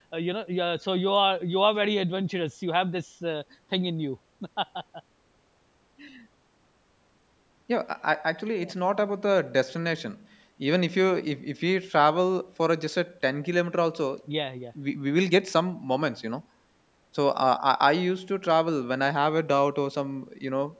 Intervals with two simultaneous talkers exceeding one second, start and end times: none

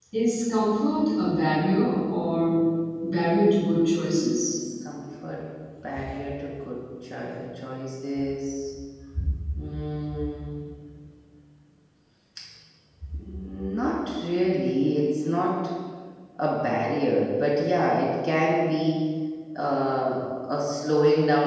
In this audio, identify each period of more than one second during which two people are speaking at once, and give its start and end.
none

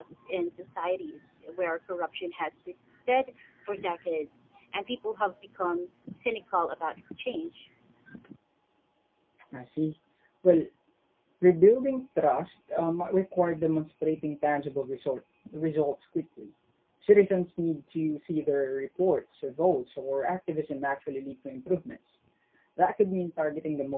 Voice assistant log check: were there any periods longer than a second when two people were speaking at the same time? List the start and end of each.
none

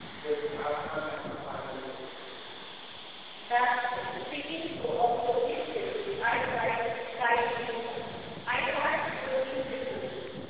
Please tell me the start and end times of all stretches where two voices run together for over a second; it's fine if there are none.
none

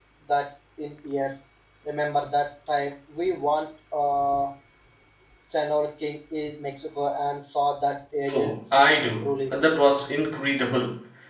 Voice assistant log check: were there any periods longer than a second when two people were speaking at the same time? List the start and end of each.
8.3-9.5

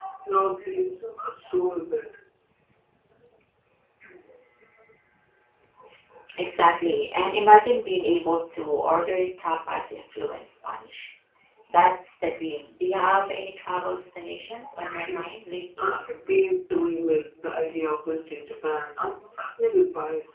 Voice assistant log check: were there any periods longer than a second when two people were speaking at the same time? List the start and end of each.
none

